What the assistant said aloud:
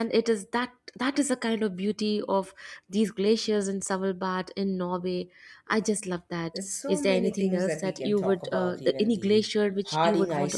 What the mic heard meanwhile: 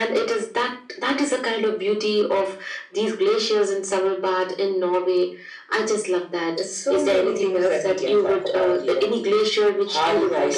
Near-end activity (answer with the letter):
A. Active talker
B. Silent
B